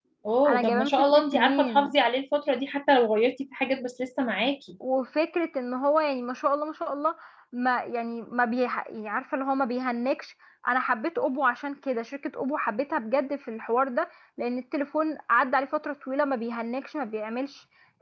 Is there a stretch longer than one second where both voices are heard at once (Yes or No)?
Yes